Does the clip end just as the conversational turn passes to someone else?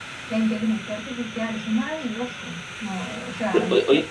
Yes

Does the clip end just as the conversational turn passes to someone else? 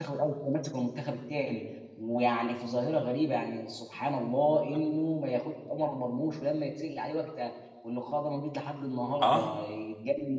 No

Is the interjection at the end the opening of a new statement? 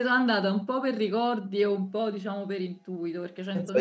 Yes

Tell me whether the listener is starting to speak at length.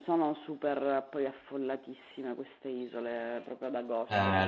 Yes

